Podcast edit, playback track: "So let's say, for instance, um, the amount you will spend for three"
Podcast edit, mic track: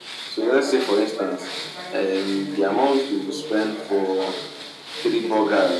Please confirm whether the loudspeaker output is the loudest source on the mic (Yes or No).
Yes